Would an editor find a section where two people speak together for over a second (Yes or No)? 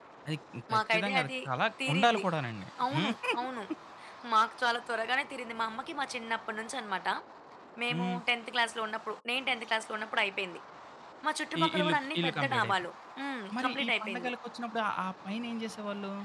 Yes